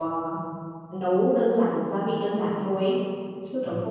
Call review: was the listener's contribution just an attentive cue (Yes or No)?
Yes